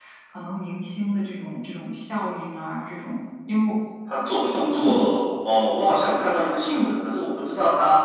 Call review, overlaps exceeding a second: none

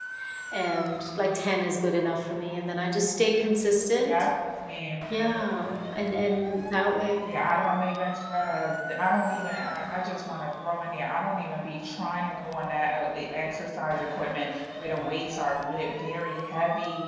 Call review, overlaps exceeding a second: none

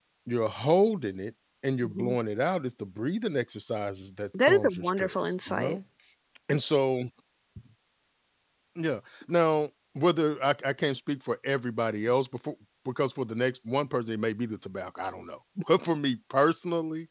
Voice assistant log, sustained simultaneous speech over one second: present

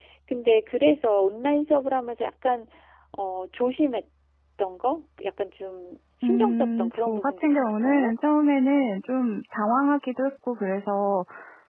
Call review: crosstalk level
present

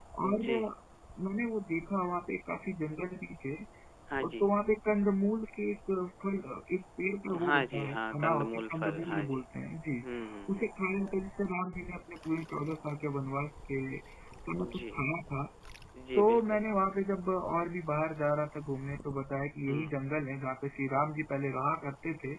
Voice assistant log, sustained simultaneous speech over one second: present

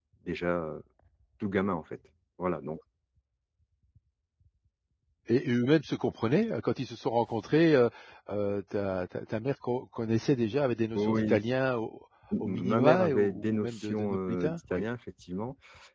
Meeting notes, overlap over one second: present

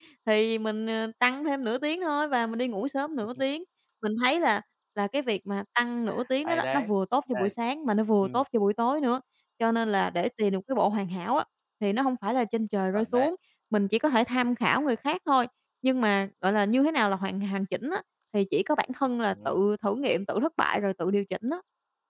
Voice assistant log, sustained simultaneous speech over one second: none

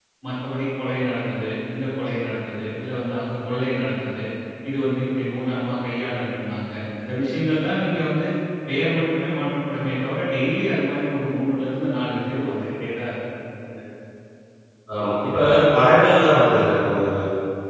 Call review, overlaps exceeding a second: none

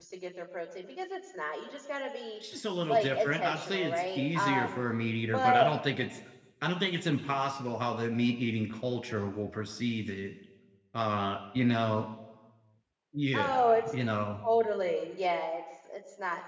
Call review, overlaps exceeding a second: present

